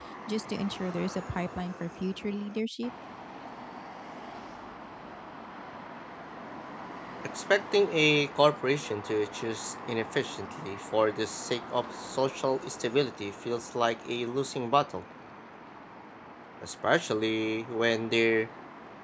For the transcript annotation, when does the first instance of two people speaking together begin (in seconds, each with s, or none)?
none